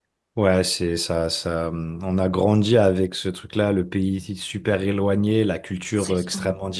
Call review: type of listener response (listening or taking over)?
listening